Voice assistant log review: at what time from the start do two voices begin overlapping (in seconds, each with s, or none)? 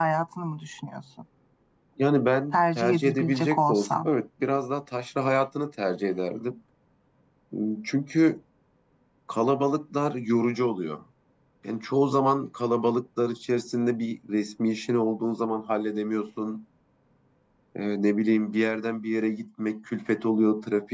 2.5 s